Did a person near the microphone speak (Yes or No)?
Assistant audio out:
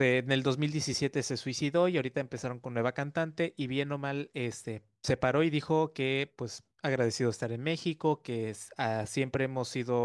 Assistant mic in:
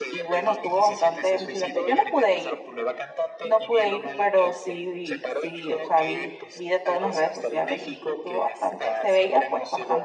Yes